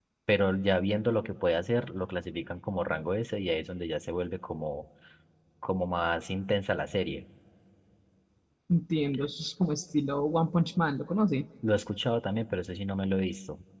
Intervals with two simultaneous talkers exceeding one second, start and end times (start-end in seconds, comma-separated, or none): none